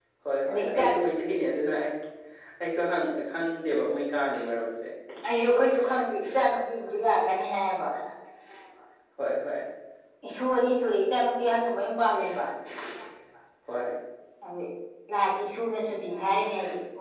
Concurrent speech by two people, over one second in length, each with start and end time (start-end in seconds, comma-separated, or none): none